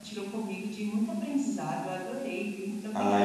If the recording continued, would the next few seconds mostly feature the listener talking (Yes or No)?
Yes